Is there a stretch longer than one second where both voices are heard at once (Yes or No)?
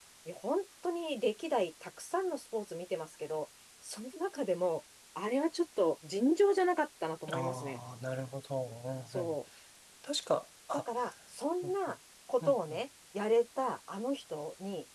No